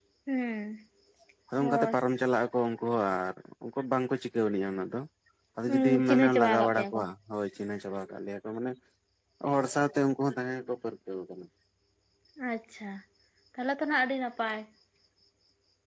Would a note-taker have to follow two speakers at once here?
Yes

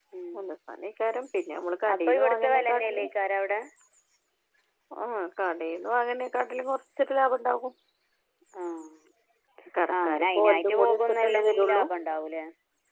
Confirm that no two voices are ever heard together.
No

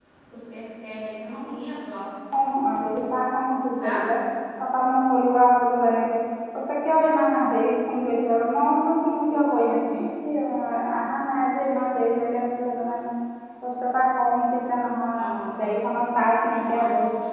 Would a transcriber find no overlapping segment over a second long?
Yes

